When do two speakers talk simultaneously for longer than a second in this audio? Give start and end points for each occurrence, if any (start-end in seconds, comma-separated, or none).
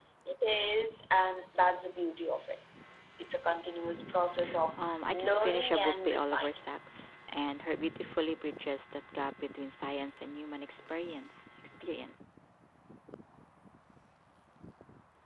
4.8-6.5